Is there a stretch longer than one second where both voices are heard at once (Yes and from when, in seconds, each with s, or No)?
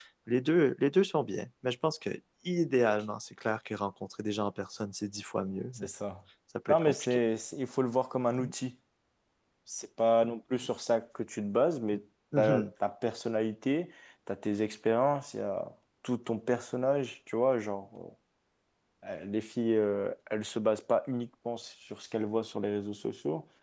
No